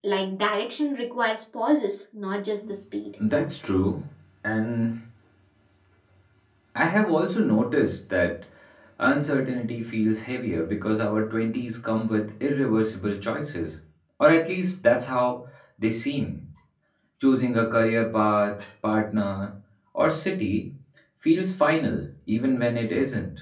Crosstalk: none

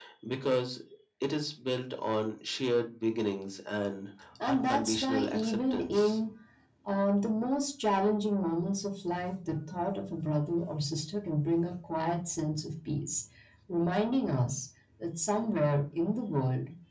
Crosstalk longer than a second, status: present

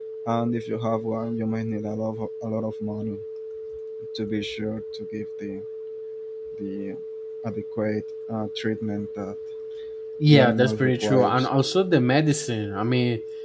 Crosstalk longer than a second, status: present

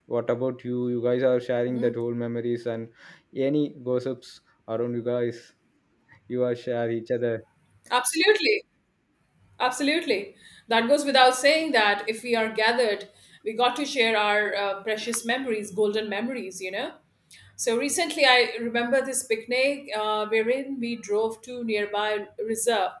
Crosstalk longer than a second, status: none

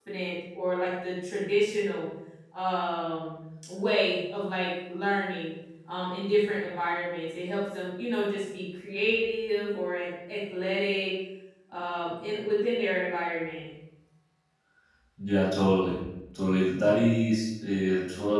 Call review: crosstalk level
none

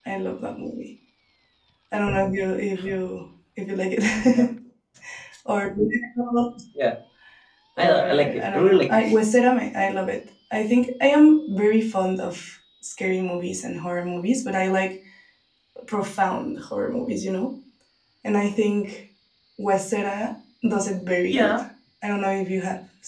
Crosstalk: present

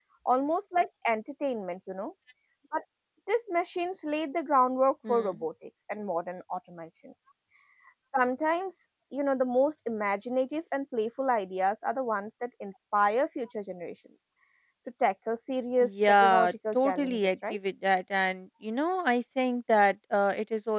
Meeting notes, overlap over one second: present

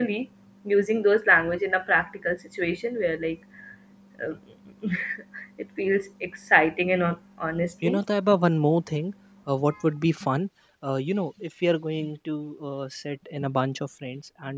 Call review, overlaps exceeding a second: none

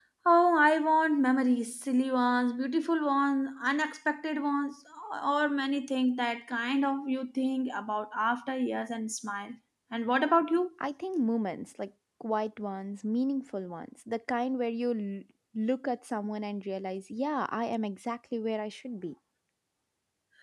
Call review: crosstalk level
none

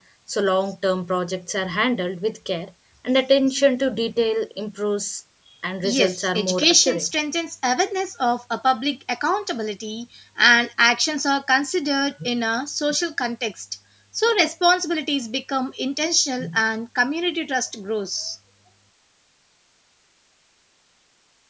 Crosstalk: present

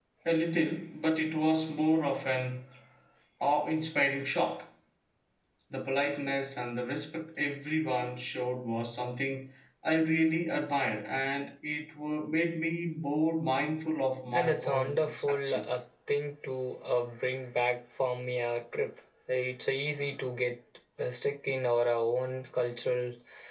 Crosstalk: present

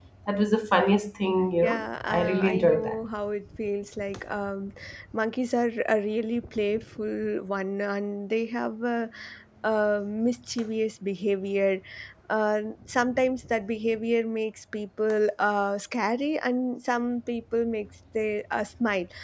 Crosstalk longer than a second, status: present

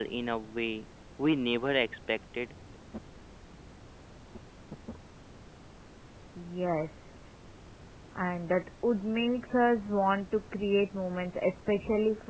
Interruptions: none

